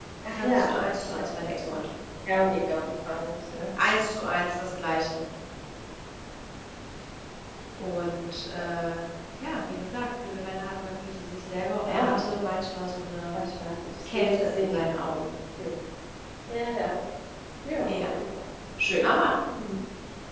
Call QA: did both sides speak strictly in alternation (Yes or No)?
No